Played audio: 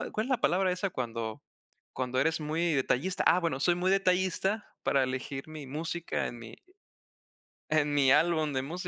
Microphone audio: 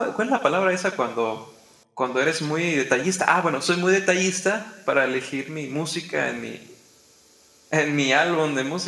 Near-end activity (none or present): none